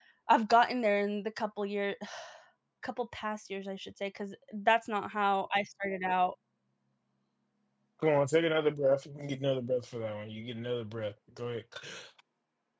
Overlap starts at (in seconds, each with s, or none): none